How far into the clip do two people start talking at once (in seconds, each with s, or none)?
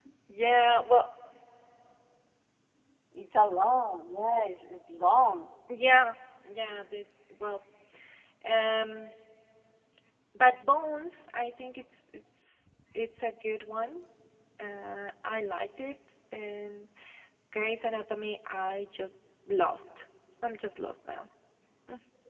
none